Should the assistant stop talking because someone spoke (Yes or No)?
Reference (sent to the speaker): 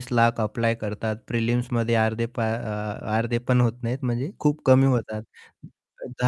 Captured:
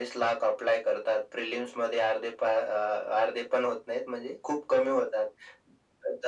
No